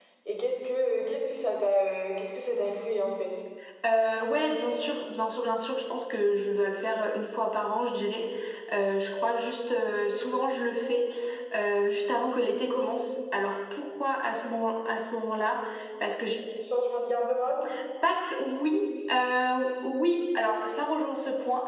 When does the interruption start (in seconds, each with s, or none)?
none